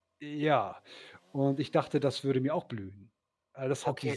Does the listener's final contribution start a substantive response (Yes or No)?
Yes